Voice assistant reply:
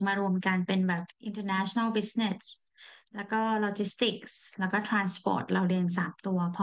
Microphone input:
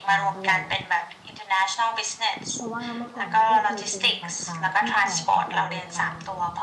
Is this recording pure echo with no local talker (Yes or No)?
No